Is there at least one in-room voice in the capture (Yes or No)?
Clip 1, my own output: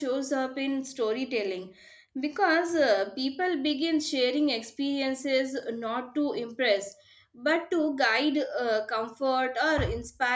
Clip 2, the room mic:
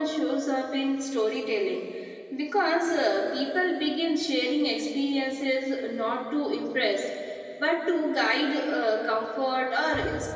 No